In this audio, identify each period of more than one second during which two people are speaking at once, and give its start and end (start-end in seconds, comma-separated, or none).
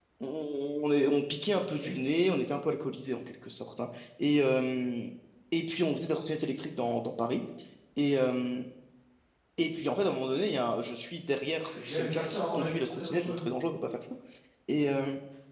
11.6-13.4